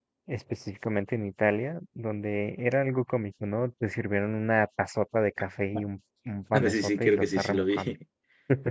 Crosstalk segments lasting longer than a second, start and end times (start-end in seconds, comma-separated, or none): 6.5-7.9